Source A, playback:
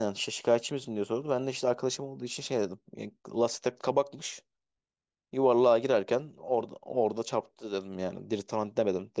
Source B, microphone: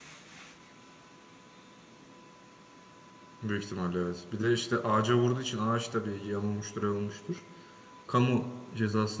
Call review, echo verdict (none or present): none